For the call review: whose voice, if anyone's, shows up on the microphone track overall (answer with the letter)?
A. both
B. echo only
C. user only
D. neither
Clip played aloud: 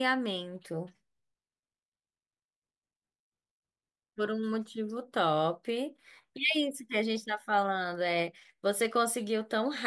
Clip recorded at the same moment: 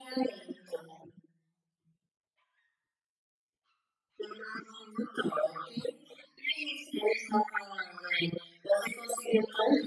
B